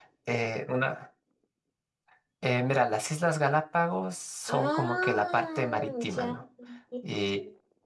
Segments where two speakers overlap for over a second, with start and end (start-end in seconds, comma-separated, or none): 4.5-6.3